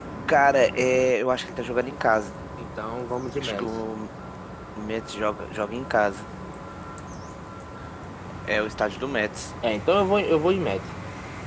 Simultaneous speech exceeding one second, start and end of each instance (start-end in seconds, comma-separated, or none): none